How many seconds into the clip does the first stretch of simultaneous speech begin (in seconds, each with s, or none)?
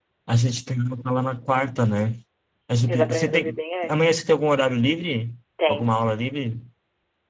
2.9 s